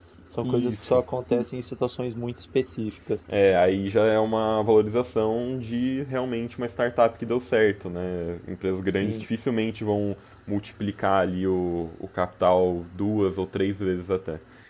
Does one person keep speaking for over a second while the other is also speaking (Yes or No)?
No